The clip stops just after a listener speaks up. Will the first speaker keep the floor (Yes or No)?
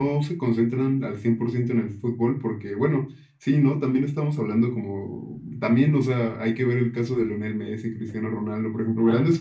Yes